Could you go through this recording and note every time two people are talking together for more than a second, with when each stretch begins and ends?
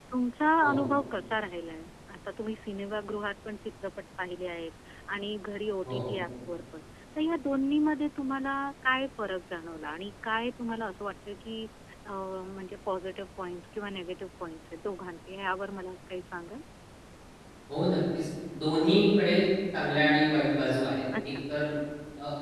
none

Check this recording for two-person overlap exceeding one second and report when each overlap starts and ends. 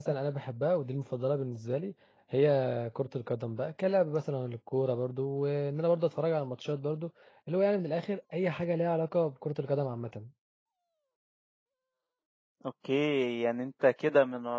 none

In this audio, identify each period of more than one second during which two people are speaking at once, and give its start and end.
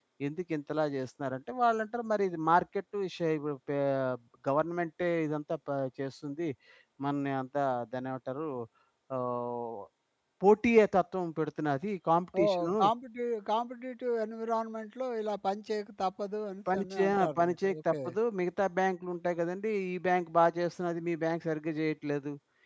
16.7-17.9

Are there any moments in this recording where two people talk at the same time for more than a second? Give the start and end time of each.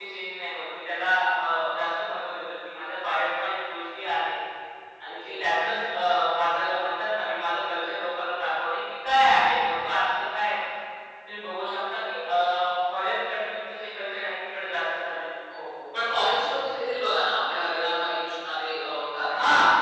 none

